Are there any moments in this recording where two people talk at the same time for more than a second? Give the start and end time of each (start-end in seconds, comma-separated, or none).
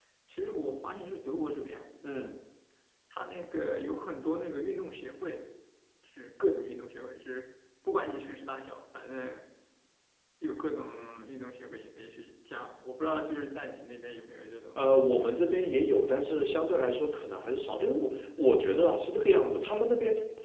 none